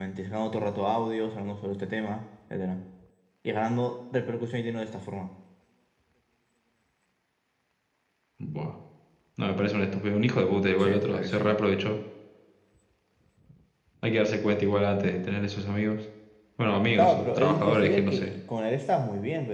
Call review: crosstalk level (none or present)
present